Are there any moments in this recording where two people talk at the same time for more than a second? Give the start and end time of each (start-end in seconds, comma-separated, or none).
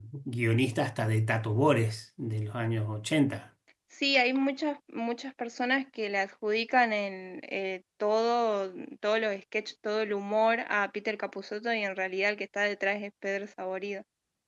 none